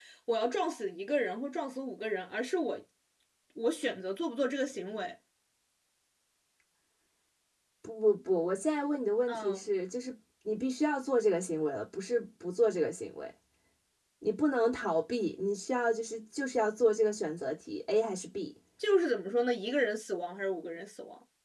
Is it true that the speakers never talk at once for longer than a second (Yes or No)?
Yes